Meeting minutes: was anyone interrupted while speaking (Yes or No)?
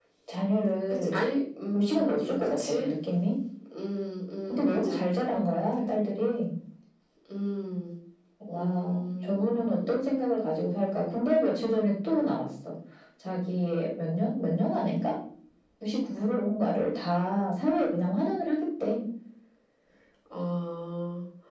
Yes